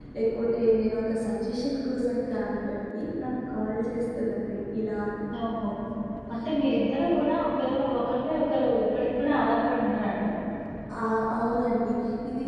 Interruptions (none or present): none